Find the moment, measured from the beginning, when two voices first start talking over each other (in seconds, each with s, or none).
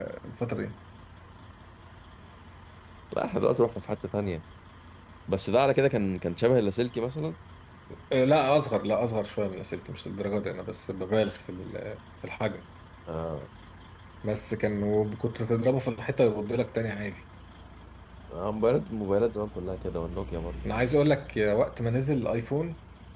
none